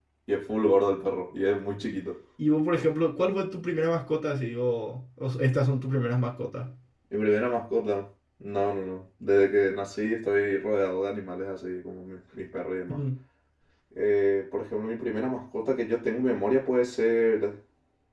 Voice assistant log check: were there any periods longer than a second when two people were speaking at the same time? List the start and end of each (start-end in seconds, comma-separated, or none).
none